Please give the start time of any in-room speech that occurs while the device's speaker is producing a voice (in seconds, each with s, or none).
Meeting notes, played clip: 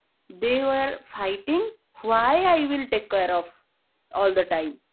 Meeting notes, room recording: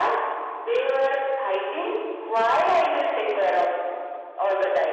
none